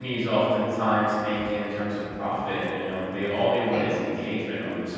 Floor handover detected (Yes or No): No